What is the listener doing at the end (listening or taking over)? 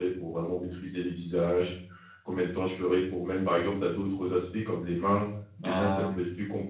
listening